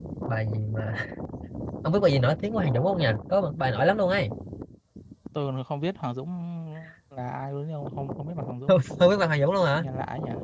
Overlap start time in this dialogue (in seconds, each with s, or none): none